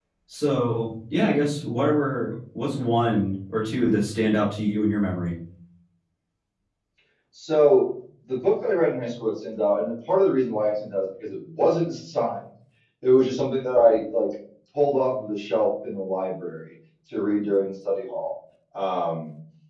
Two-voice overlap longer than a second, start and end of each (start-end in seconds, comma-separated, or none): none